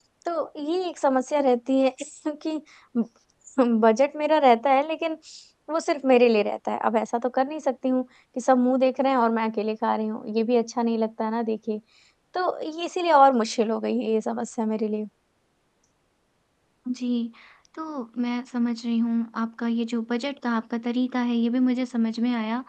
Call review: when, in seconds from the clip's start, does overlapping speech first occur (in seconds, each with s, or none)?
none